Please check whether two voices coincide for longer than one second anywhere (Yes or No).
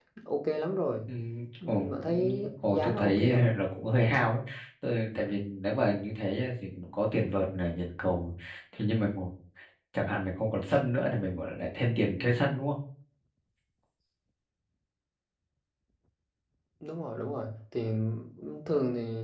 Yes